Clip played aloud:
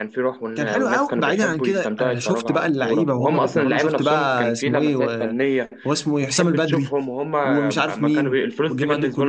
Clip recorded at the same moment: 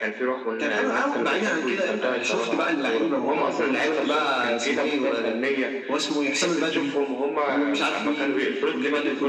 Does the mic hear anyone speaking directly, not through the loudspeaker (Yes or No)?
No